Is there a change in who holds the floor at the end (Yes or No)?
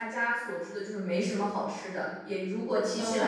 No